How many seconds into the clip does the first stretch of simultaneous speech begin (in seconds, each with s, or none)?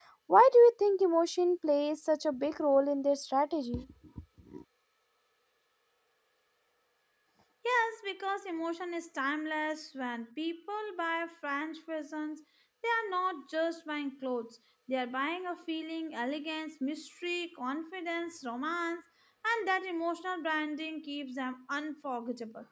none